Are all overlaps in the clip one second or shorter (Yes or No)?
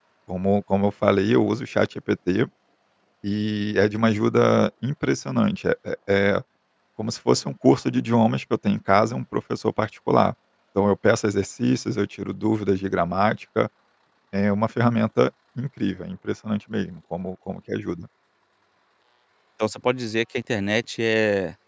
Yes